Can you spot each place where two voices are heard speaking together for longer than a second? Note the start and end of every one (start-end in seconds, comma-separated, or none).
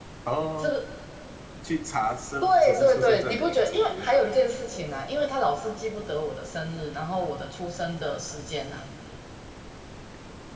2.4-4.2